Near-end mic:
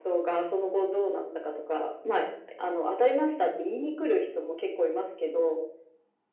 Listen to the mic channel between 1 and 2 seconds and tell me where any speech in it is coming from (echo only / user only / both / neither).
echo only